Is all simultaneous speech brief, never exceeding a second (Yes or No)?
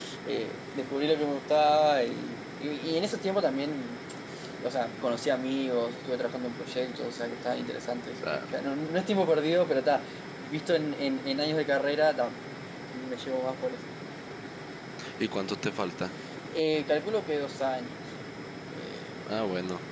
Yes